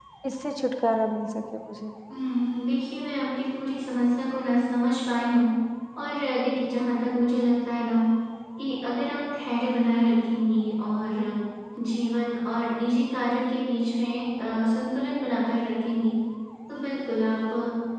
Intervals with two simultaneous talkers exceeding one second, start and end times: none

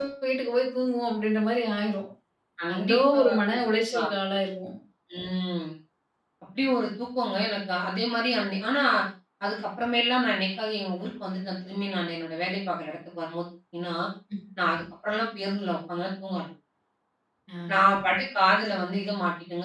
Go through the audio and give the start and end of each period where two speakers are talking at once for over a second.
2.8-4.0

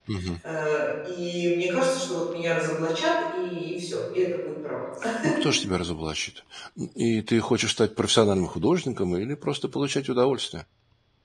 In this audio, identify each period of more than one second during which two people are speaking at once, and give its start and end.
none

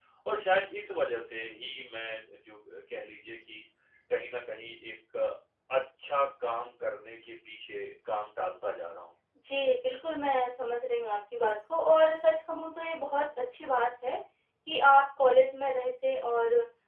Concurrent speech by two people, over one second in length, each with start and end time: none

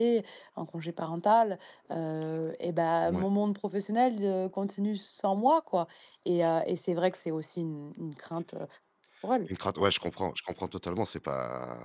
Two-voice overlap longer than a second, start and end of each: none

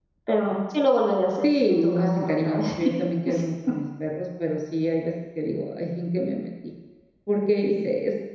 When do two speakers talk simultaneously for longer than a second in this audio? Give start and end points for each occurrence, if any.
1.4-2.6

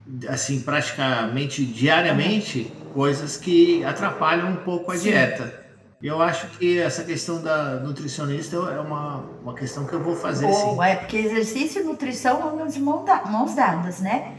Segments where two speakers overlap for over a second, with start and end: none

